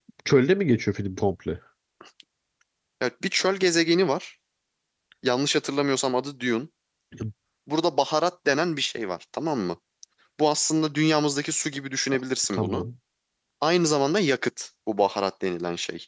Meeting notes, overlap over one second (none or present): none